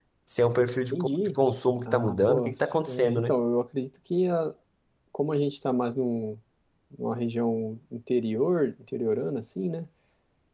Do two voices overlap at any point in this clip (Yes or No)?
Yes